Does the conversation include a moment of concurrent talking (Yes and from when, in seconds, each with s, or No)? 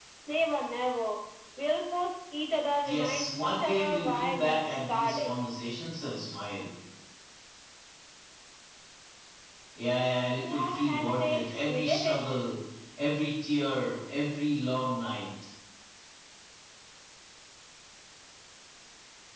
Yes, from 2.8 s